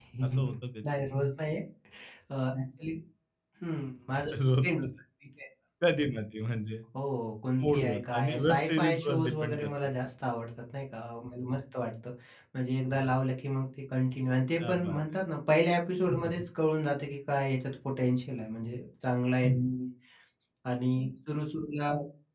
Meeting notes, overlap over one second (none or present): present